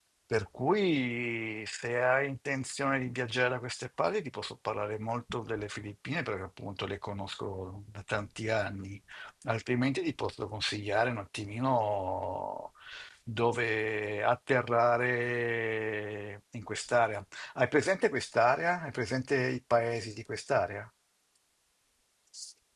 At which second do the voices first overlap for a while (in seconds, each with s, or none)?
none